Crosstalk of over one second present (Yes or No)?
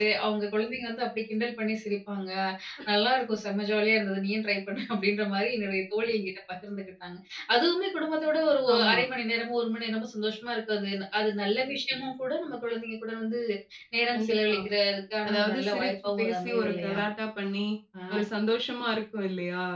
Yes